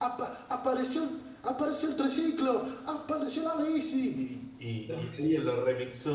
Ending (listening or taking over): listening